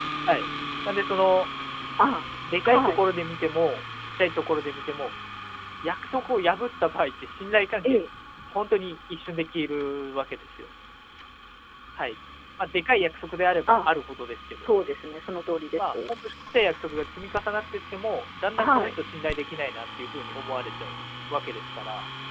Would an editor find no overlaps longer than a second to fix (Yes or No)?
Yes